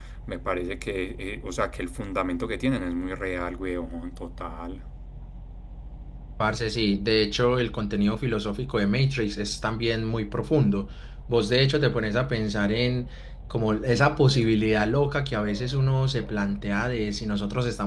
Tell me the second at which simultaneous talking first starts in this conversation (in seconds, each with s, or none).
none